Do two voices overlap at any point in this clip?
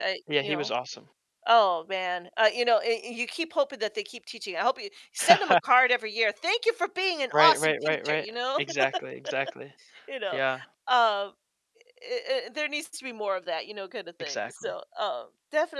Yes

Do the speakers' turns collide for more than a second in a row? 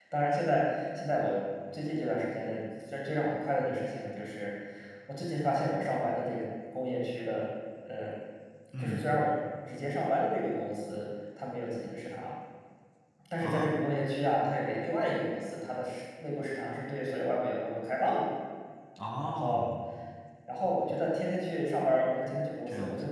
No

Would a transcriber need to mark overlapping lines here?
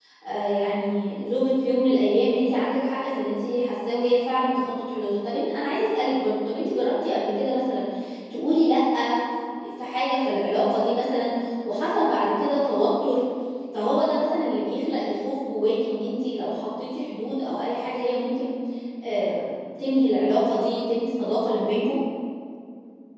No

